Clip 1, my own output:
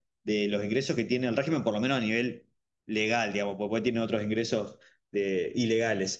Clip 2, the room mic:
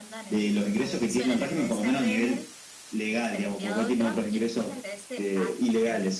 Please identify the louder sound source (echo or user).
echo